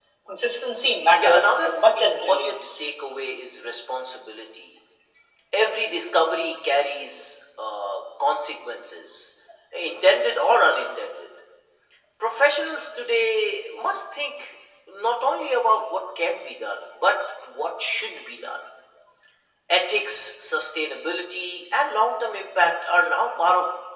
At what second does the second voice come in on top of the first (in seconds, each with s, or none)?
1.2 s